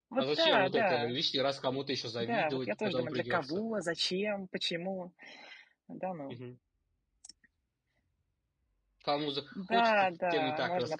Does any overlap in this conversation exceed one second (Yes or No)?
Yes